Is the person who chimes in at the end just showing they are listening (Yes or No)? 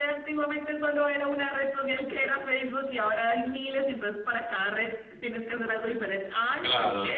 No